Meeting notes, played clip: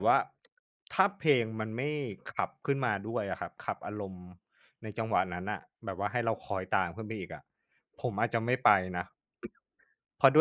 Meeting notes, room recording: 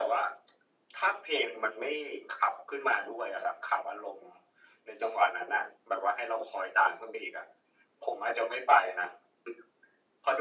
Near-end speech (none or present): none